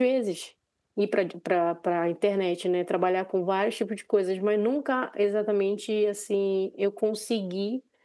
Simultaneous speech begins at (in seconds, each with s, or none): none